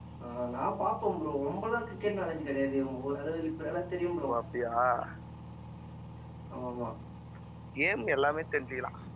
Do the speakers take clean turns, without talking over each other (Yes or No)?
Yes